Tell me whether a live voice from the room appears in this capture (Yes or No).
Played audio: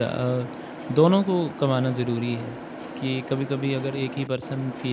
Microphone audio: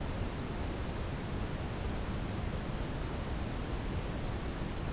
No